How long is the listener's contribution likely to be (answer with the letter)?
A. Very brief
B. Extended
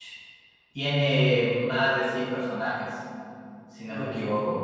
A